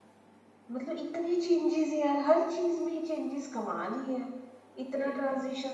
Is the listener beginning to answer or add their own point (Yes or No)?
No